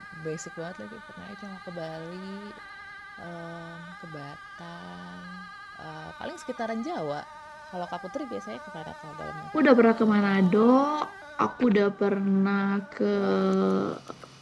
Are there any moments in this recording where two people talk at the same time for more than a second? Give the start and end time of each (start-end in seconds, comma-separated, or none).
none